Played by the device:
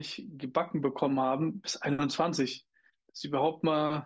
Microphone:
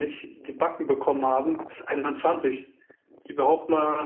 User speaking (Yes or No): No